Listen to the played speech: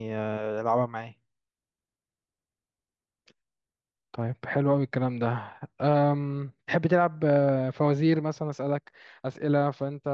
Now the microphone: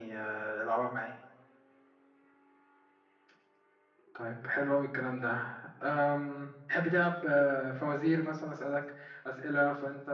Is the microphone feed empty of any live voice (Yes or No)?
Yes